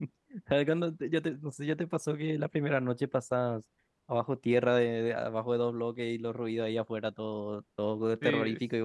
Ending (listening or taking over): taking over